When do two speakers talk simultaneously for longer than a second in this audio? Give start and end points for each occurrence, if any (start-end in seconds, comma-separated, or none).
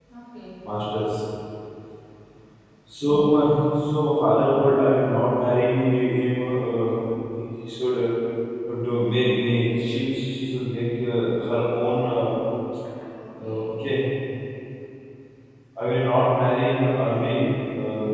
none